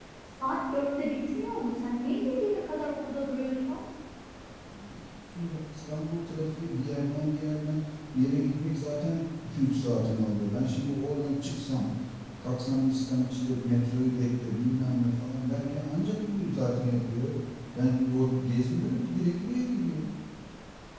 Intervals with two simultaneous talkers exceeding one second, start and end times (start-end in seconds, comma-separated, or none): none